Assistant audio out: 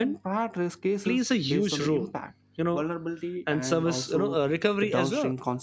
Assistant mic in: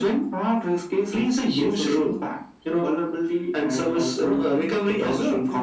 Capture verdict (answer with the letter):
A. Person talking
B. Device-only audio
A